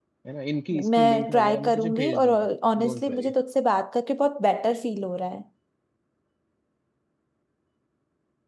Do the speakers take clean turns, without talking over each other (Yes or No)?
No